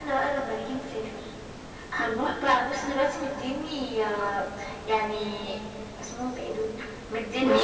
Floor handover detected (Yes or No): No